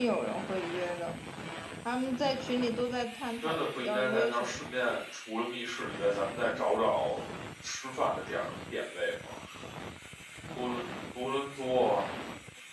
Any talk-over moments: Yes, from 3.4 s

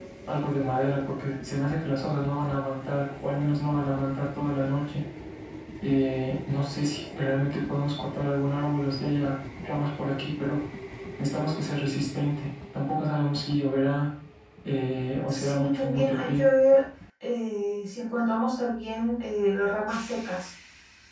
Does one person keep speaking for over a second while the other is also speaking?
Yes, from 15.3 s

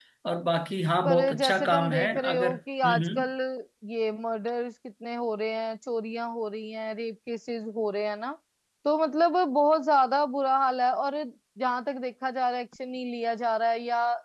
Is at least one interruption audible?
Yes, from 1.0 s

